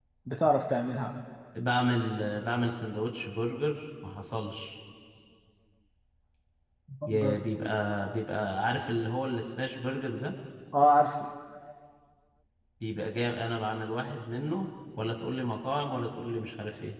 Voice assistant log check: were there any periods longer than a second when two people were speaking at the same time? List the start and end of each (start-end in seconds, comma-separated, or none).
none